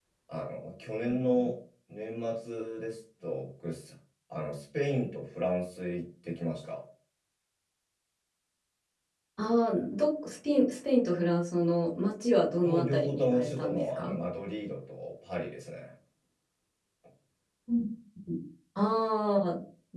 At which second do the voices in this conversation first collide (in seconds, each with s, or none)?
12.6 s